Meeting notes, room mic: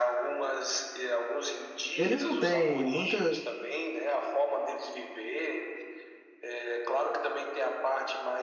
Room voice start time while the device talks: 2.0 s

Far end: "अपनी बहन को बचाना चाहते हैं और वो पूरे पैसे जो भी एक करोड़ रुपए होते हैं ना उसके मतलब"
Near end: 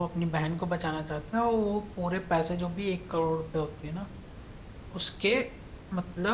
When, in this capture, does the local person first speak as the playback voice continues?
none

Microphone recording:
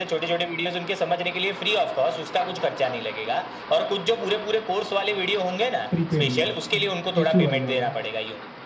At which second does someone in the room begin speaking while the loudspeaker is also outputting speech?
5.9 s

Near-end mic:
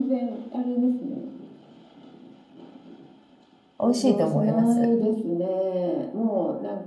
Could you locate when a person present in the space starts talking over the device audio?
3.8 s

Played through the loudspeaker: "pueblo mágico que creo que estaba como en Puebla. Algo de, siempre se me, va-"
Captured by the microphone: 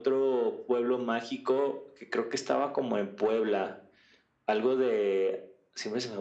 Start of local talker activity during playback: none

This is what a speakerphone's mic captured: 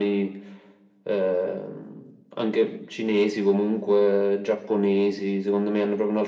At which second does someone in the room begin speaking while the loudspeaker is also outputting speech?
none

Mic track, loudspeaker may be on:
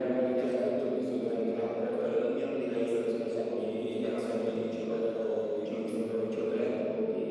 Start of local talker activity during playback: none

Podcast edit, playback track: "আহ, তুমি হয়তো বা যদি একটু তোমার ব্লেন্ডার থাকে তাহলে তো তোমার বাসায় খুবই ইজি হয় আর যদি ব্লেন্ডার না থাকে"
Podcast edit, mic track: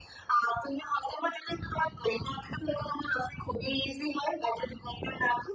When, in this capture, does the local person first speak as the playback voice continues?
none

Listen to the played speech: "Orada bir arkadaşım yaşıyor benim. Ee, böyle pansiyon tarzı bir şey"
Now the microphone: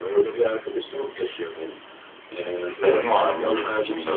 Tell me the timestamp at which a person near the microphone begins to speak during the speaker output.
2.7 s

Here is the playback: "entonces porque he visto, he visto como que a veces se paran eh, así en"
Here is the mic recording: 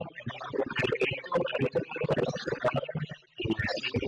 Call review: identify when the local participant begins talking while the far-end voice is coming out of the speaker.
none

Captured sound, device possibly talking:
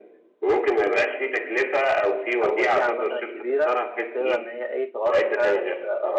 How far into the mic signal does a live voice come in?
2.4 s

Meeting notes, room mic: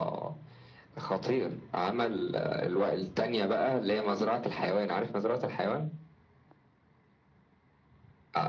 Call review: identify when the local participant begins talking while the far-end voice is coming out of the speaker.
none

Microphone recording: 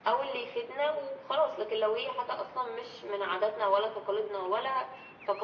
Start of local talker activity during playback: none

